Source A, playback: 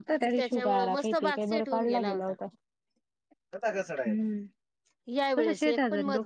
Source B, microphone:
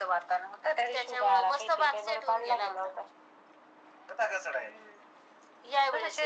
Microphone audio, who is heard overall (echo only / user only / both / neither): echo only